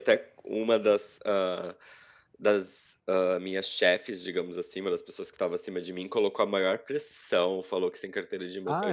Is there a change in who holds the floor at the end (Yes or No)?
No